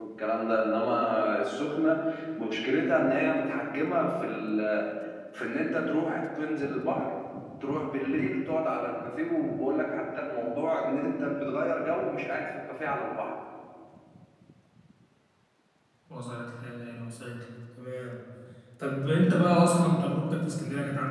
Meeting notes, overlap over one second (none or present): none